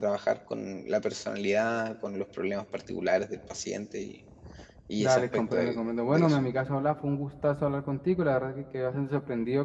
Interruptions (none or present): present